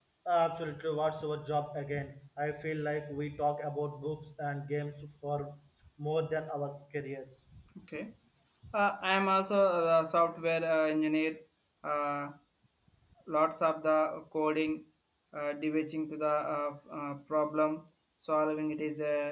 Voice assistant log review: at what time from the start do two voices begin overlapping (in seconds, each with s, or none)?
none